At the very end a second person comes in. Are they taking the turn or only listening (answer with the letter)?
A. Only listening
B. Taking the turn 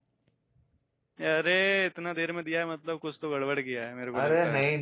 B